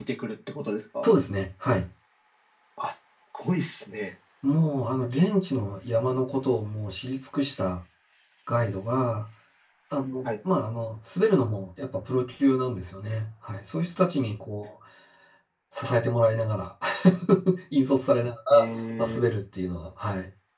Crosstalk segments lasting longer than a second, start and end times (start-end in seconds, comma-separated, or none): none